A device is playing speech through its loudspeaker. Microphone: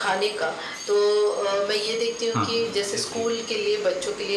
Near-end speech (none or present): present